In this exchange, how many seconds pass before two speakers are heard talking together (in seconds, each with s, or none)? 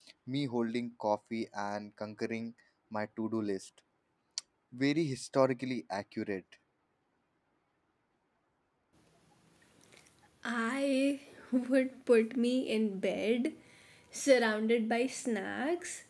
none